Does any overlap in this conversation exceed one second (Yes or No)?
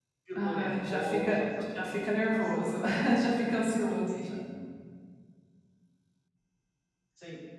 Yes